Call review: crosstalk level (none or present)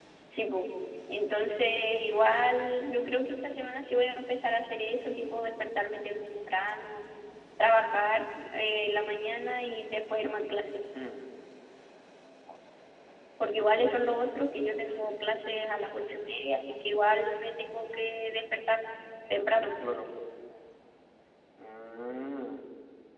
none